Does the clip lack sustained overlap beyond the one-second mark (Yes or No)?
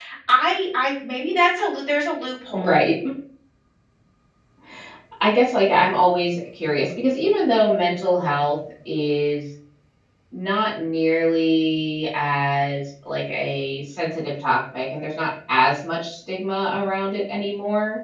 Yes